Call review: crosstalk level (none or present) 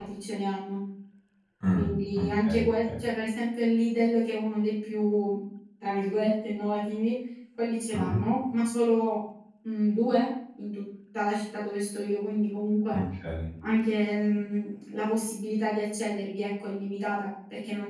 present